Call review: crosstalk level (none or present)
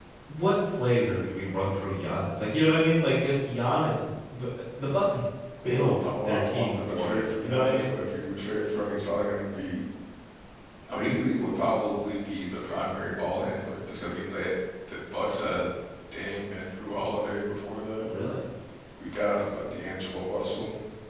present